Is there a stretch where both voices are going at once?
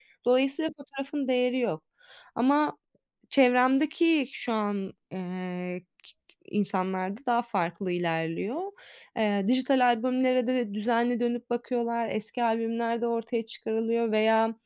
No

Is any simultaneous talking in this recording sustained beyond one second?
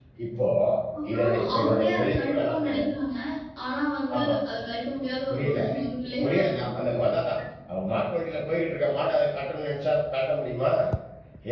Yes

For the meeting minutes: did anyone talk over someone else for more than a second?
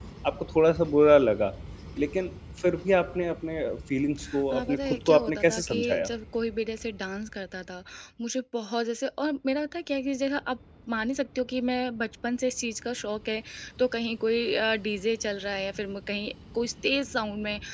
Yes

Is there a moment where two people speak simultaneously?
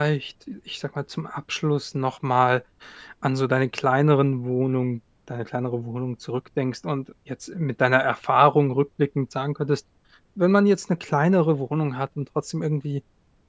No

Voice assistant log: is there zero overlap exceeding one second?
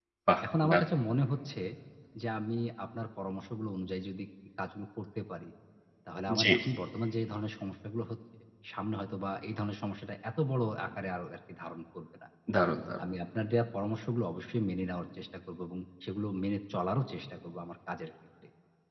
Yes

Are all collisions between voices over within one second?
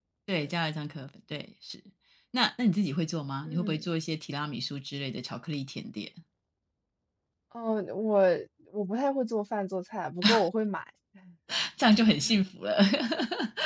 Yes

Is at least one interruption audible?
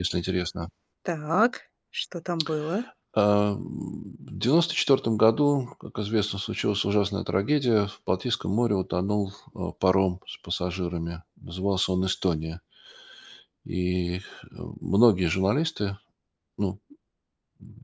No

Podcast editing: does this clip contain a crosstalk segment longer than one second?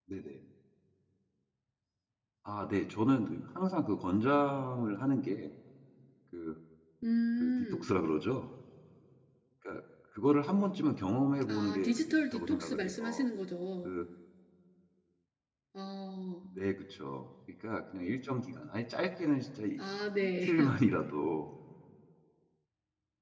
Yes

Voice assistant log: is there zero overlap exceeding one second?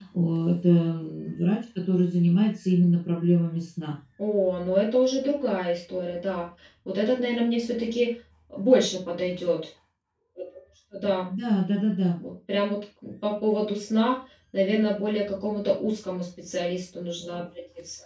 Yes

